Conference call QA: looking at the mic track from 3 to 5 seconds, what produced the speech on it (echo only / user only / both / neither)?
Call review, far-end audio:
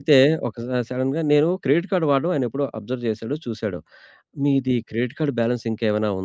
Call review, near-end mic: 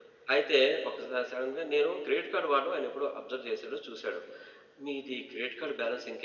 echo only